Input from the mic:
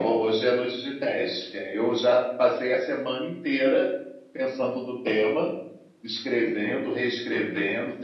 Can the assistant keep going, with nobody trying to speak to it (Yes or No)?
Yes